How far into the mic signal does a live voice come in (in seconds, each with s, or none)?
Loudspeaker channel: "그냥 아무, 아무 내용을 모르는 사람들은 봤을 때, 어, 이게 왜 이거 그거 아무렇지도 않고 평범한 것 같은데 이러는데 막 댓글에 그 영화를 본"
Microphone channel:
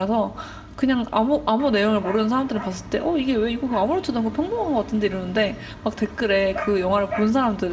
none